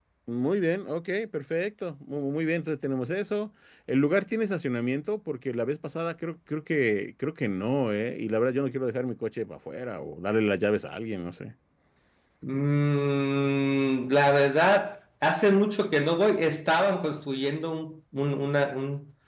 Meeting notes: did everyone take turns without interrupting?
Yes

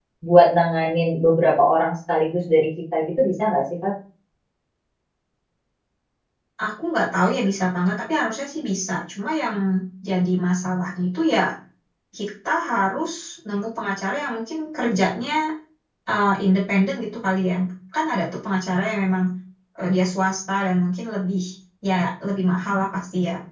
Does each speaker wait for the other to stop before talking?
Yes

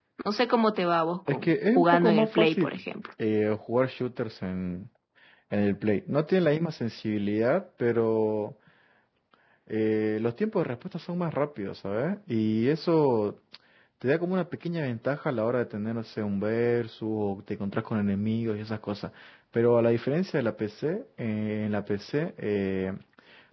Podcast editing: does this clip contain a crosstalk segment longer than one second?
Yes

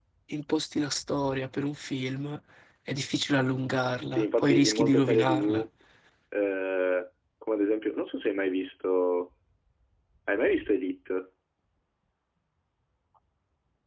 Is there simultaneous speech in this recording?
Yes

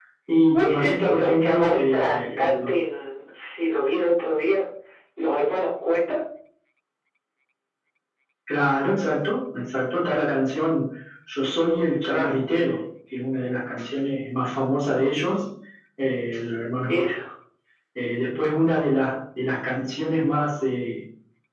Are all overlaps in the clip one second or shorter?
No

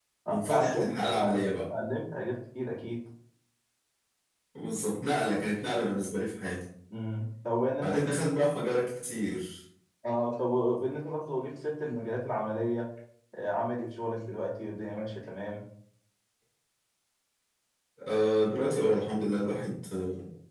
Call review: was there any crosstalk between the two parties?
Yes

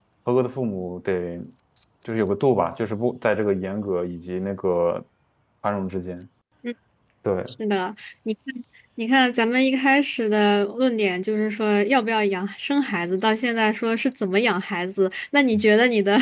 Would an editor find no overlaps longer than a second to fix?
Yes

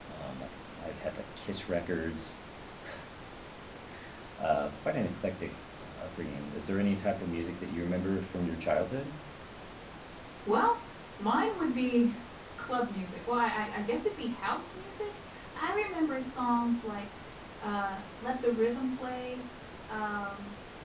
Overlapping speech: No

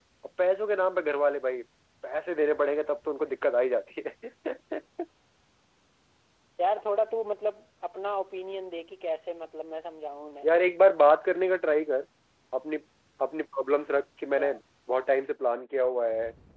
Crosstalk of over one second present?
No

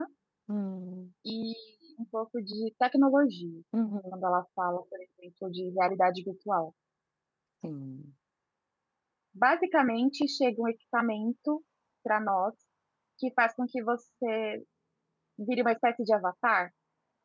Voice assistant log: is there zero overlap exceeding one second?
Yes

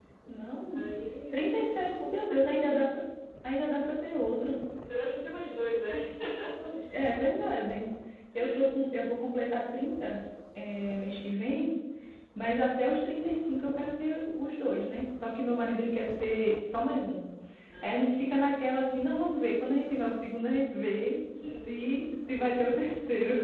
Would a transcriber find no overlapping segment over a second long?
No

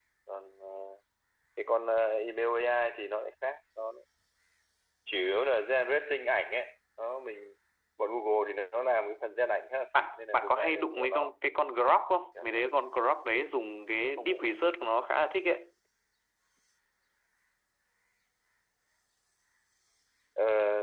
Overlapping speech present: Yes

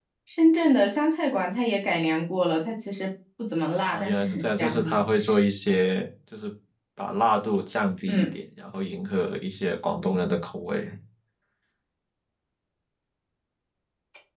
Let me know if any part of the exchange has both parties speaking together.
Yes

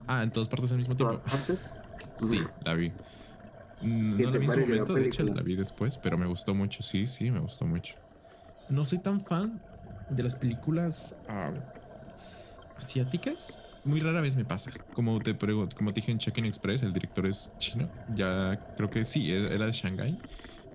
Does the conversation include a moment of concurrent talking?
Yes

